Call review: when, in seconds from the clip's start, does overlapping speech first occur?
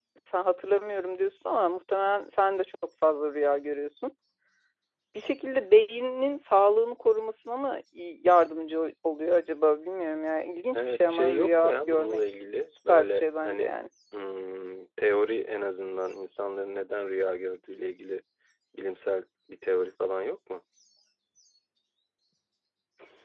10.7 s

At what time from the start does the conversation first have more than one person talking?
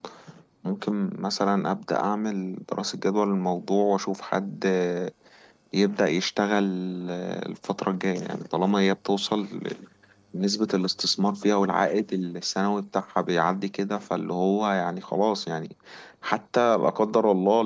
none

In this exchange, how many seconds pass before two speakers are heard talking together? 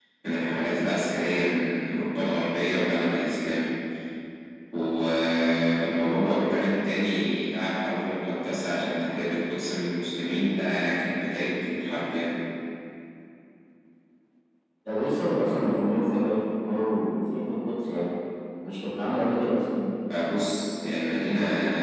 none

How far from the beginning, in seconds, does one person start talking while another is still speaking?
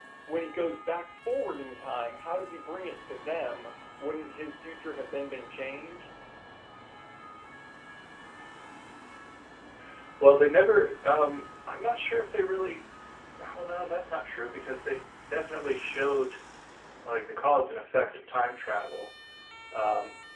none

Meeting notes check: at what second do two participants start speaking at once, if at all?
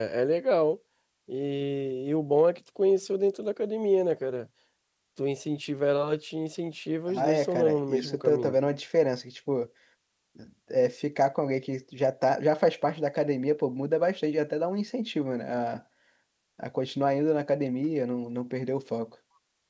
7.1 s

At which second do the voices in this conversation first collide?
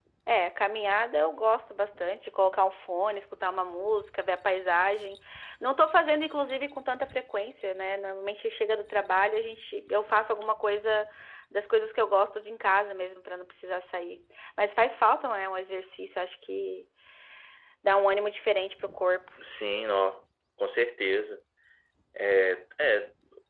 none

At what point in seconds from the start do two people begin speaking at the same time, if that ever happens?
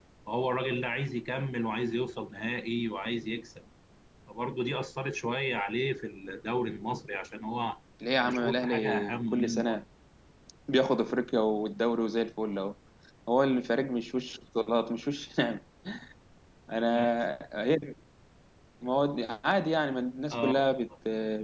8.1 s

